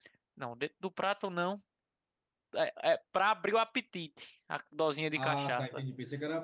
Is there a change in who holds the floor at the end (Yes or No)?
Yes